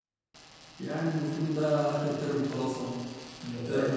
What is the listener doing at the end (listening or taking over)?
listening